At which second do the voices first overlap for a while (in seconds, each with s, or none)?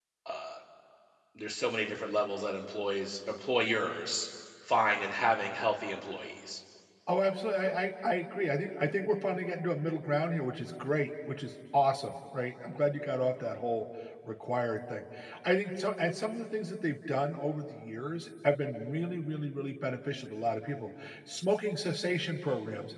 none